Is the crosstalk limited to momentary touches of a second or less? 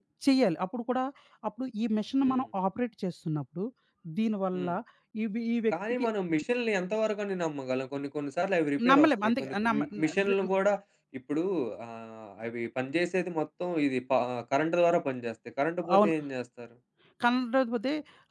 No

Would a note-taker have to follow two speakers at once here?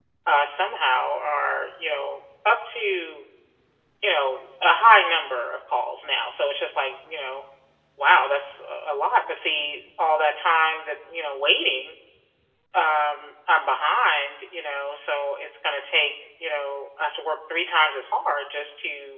No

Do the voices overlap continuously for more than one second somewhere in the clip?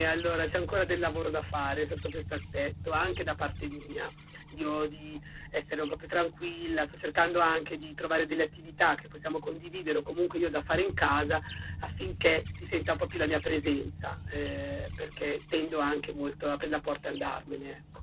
No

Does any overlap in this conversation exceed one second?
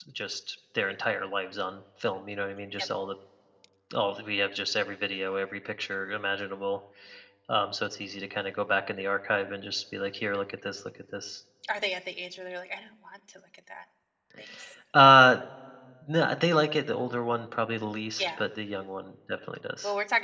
No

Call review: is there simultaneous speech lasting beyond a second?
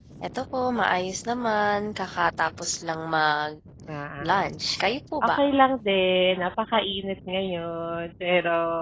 No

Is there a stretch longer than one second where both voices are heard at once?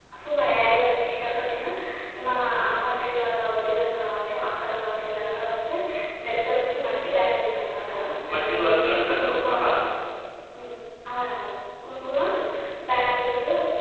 Yes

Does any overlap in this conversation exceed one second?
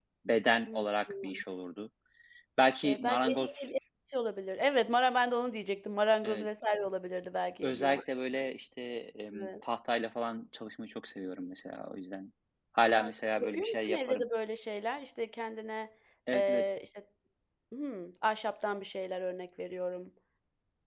Yes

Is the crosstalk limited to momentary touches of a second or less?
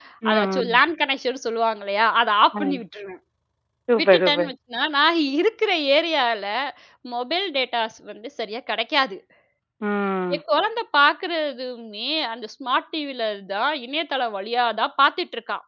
Yes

